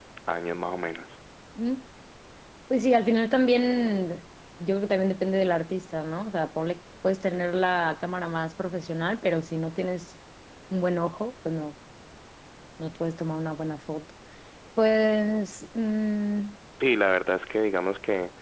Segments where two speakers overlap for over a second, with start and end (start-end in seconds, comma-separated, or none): none